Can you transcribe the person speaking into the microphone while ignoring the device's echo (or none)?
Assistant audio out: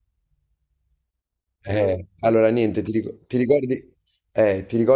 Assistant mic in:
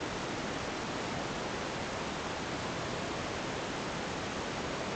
none